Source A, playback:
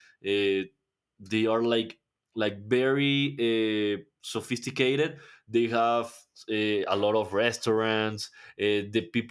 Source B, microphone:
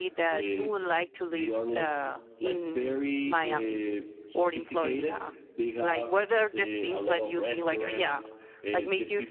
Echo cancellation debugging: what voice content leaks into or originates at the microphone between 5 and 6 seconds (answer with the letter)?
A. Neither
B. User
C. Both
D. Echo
C